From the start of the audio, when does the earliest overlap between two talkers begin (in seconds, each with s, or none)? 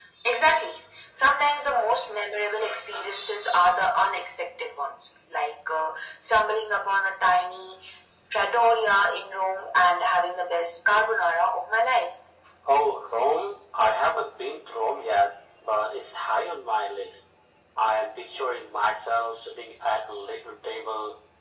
none